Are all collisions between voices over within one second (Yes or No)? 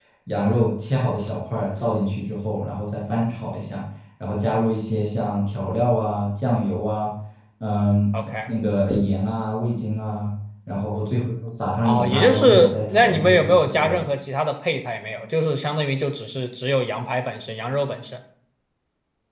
No